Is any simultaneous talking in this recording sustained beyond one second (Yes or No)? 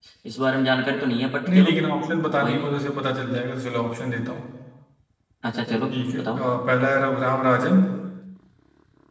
No